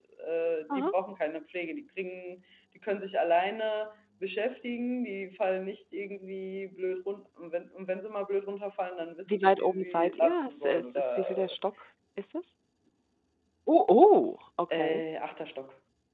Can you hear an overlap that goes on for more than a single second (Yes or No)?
Yes